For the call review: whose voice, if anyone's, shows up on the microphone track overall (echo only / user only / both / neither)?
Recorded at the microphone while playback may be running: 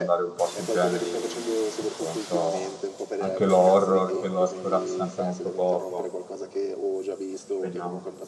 both